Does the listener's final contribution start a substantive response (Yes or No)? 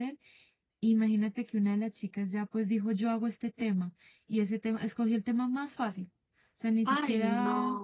Yes